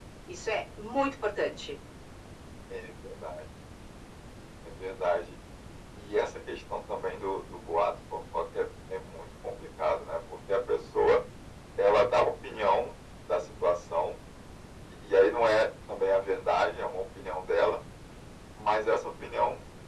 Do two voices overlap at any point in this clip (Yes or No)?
No